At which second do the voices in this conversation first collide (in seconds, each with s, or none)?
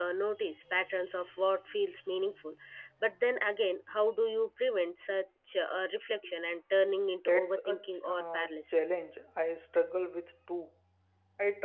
7.2 s